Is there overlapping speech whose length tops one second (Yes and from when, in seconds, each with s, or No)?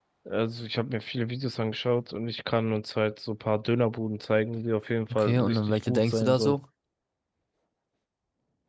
Yes, from 5.1 s